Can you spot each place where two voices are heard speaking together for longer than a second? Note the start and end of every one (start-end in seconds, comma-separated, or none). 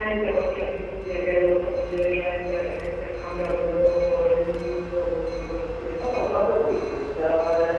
none